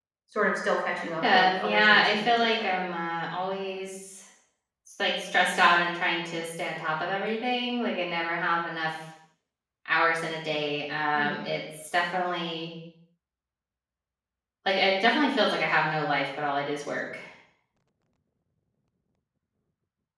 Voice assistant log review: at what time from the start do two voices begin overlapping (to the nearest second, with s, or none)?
1 s